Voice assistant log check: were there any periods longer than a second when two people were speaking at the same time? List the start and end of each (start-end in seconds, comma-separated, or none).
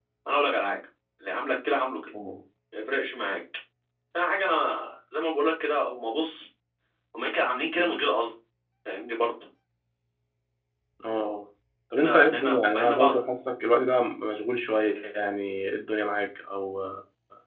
12.0-13.3